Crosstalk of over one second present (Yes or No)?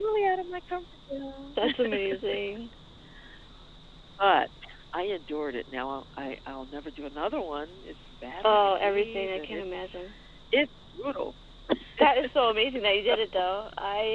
Yes